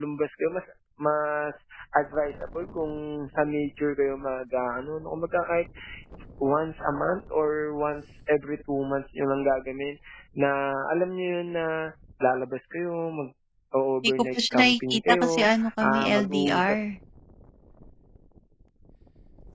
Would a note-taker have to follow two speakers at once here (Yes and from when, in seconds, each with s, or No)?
Yes, from 14.0 s